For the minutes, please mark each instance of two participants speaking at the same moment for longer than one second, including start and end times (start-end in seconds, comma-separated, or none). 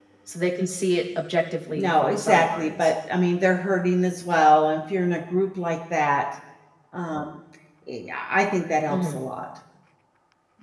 1.7-2.9